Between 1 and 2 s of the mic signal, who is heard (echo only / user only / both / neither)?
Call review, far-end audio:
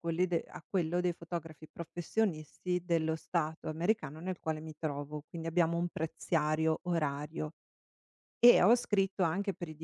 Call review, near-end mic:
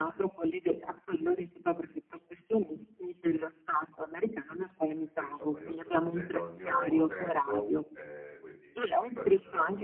echo only